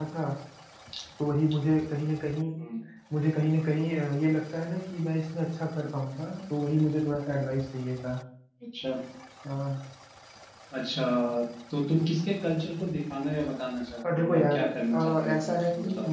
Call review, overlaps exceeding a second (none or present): present